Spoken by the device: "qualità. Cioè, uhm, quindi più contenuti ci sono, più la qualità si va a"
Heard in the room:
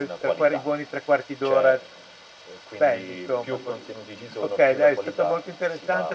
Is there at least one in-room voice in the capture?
Yes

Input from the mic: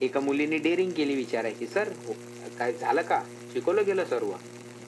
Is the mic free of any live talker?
Yes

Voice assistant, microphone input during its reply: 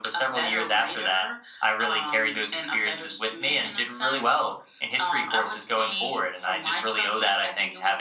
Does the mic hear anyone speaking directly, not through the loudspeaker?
No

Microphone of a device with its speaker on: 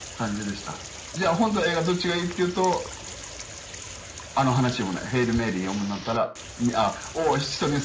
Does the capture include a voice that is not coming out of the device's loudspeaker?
No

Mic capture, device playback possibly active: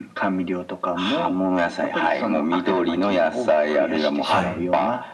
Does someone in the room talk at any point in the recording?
Yes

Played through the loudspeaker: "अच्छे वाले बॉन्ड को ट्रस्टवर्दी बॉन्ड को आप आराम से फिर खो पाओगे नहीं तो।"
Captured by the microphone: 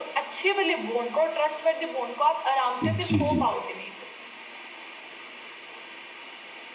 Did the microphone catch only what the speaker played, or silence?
No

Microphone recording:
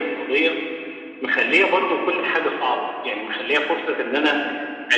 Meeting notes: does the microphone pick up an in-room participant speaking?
No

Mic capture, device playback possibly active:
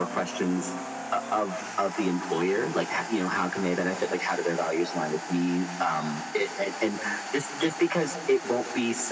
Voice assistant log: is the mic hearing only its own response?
Yes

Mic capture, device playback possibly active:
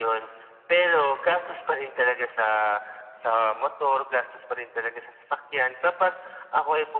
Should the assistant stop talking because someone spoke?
No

